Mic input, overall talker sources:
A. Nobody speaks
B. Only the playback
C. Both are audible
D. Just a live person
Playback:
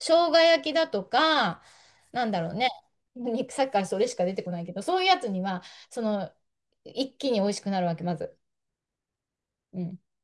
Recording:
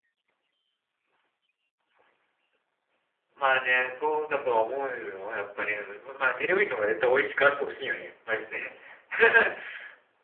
D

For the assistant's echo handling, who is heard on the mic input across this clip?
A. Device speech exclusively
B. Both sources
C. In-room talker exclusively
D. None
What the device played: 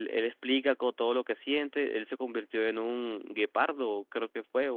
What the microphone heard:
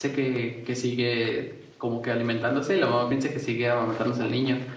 C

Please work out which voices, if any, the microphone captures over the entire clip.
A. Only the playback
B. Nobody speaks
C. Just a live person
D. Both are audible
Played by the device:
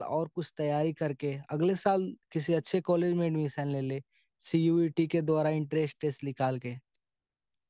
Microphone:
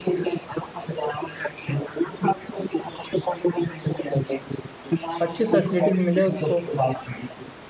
D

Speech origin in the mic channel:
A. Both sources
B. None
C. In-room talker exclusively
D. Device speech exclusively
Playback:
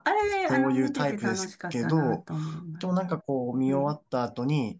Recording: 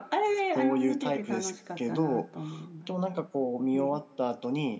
D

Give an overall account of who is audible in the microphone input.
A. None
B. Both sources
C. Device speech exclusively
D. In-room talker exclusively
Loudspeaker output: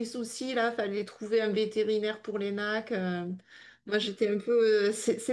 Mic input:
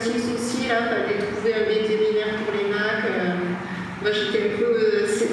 C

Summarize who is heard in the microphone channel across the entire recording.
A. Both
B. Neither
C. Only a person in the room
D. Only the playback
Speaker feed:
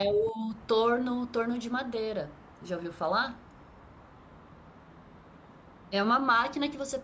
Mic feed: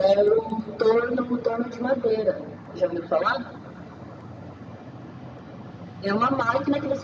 D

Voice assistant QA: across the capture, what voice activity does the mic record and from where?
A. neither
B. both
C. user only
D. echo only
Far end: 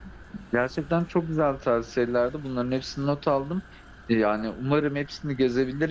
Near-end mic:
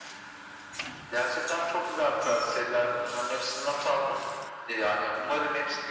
D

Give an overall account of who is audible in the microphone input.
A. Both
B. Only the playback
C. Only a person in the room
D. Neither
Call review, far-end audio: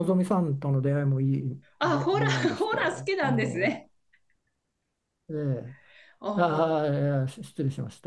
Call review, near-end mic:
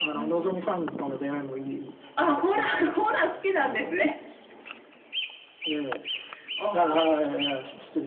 B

